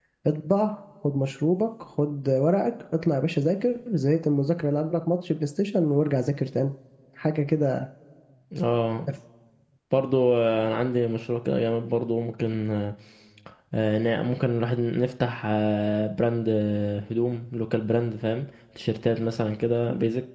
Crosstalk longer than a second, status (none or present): none